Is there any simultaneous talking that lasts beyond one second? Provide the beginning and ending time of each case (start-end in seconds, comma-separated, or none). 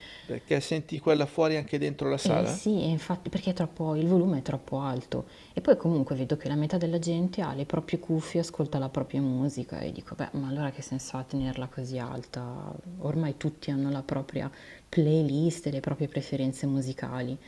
none